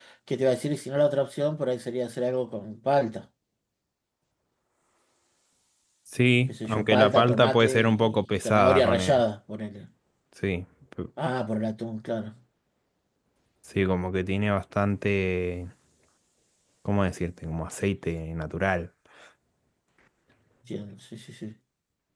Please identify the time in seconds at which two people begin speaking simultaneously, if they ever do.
6 s

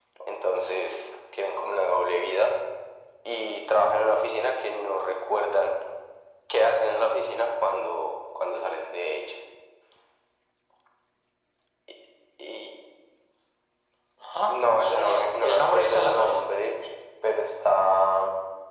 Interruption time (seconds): 14 s

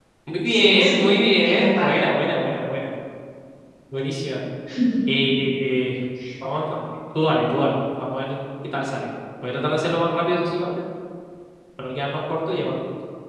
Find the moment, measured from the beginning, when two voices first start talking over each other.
1 s

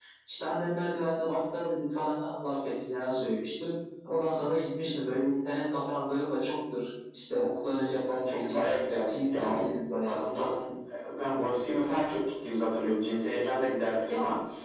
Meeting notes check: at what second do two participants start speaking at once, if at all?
8 s

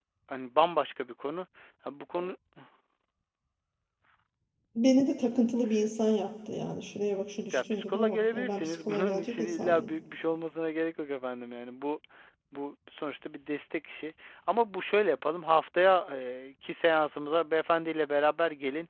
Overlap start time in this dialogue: 8 s

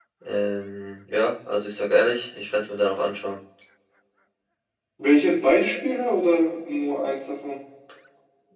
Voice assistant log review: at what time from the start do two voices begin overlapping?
none

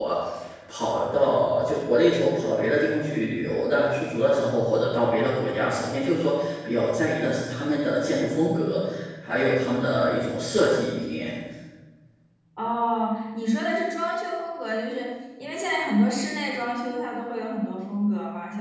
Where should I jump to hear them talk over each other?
none

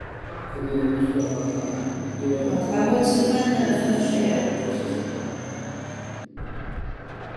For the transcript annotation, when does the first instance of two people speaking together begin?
2 s

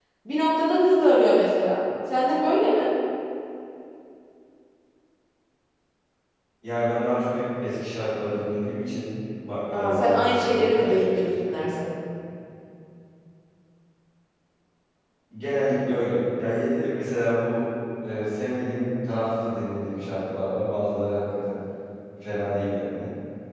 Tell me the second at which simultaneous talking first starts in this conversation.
10 s

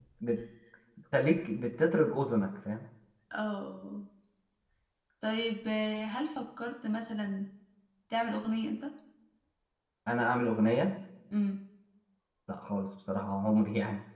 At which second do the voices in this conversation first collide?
none

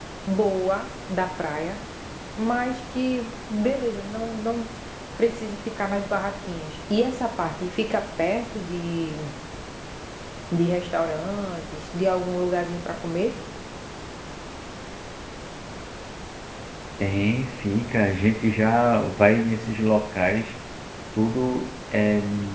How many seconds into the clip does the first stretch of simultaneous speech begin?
none

